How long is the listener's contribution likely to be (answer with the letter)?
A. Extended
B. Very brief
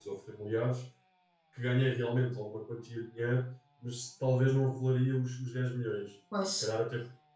B